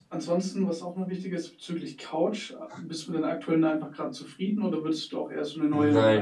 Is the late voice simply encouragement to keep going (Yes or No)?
No